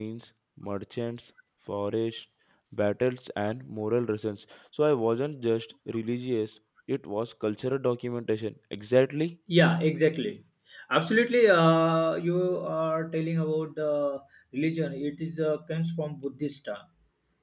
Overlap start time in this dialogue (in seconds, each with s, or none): none